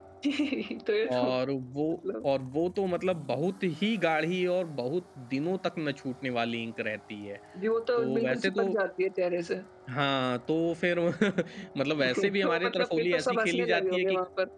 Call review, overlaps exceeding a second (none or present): present